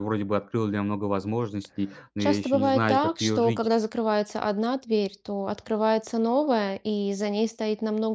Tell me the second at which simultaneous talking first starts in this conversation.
2.2 s

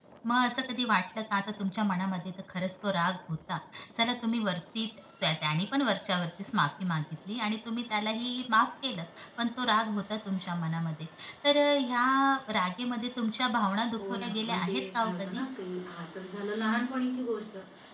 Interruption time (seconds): 14.0 s

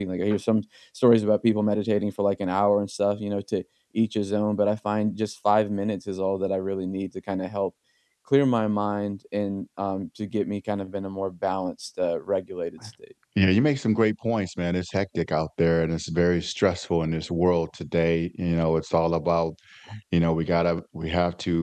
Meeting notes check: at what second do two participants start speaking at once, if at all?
none

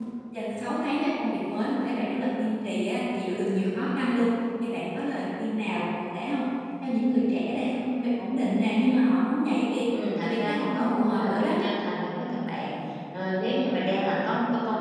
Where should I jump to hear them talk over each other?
10.2 s

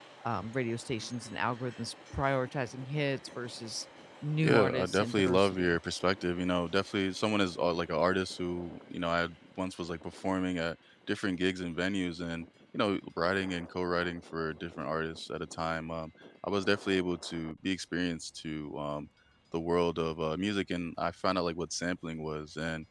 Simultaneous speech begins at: 4.4 s

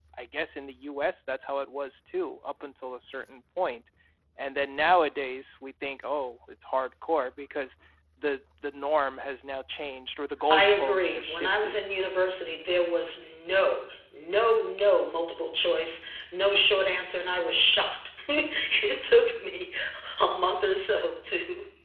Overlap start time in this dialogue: 10.5 s

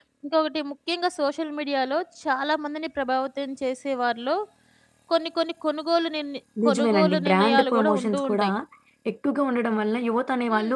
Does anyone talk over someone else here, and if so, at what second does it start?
6.6 s

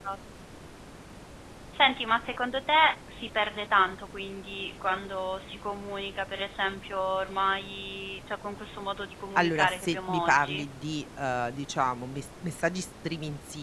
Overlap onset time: 9.4 s

